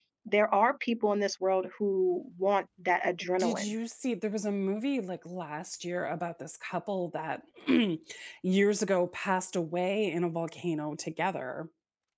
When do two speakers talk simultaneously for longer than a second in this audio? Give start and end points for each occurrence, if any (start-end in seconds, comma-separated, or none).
none